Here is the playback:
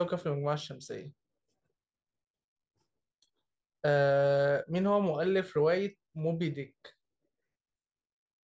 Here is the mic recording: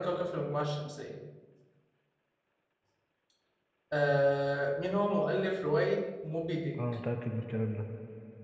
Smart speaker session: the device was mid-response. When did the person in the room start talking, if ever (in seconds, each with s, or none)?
6.8 s